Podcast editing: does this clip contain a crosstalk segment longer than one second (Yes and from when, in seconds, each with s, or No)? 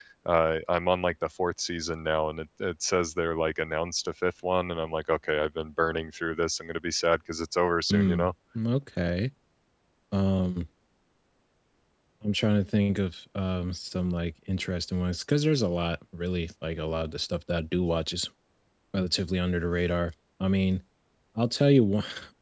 No